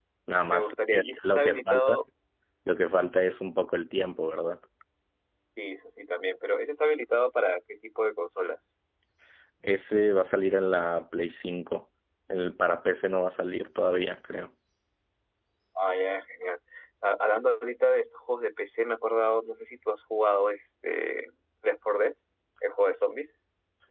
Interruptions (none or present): present